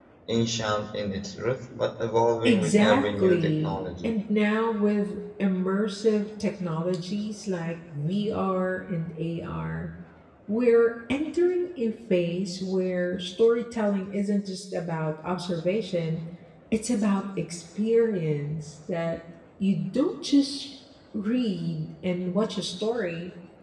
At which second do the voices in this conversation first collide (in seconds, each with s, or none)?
2.4 s